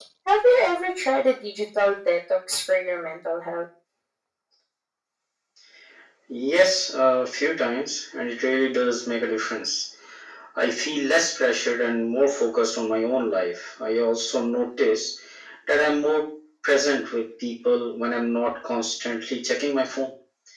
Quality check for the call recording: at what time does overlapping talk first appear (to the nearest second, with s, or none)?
none